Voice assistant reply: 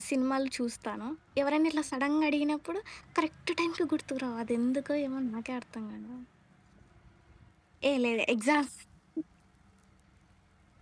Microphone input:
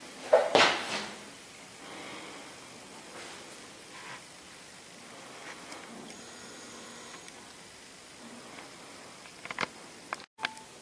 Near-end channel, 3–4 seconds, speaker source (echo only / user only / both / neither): neither